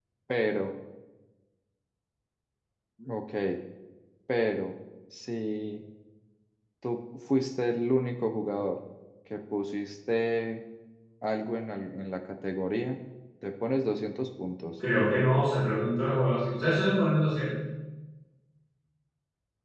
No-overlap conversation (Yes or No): Yes